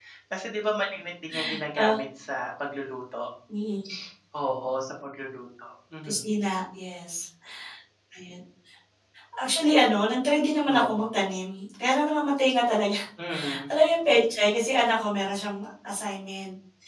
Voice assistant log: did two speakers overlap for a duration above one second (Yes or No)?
No